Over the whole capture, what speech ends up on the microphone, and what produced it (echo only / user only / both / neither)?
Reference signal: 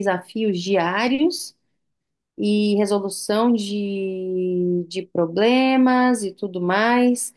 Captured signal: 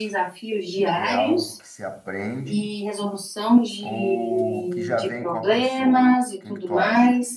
both